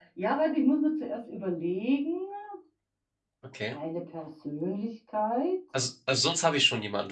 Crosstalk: none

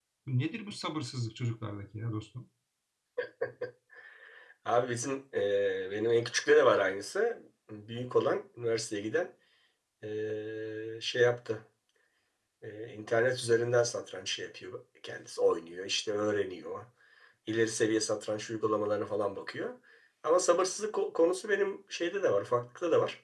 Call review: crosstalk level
none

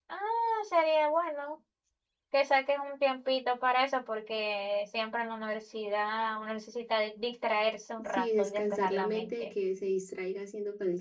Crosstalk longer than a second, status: present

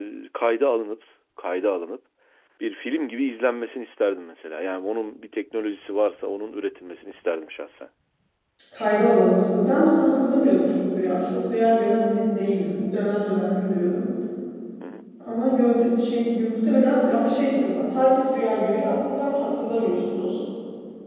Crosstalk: none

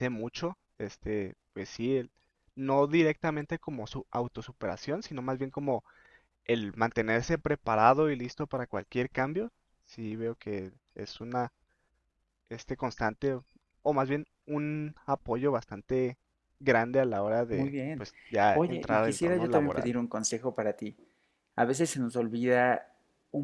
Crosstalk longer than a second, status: present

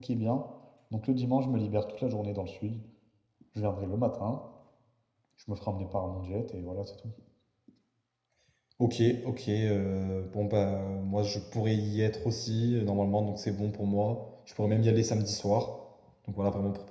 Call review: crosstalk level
none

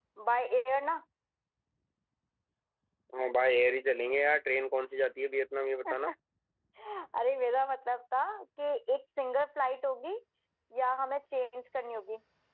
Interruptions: none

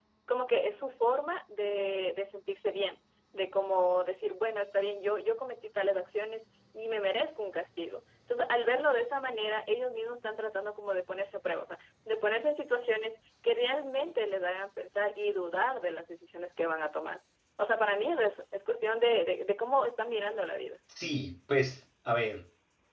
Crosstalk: none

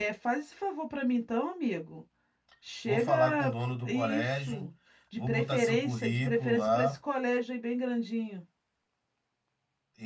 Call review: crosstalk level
present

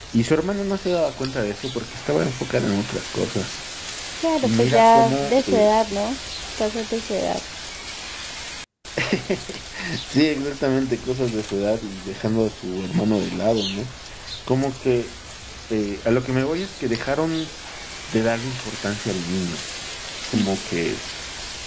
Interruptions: present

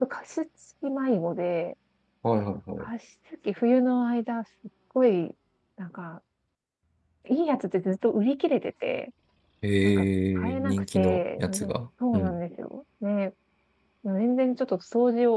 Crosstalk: present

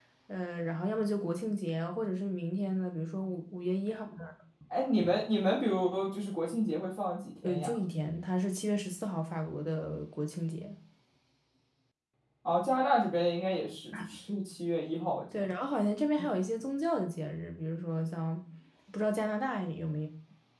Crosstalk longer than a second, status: none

